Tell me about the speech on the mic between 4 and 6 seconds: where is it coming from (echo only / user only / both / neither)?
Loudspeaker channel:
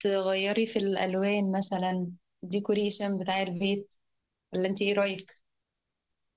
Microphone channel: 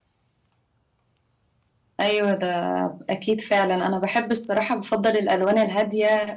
user only